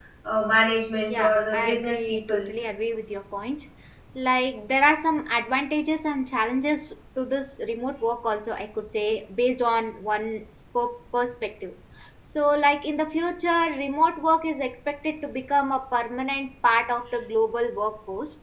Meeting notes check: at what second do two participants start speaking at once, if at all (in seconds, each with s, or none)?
1.1 s